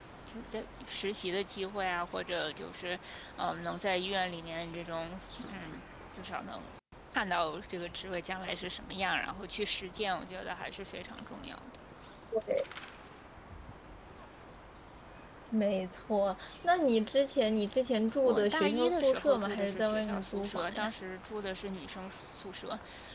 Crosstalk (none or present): present